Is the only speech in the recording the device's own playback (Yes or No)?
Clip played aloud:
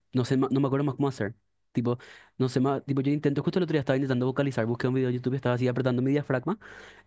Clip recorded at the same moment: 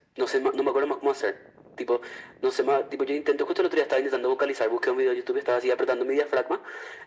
Yes